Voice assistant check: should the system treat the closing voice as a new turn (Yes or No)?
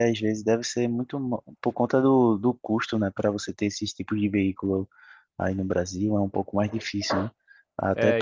No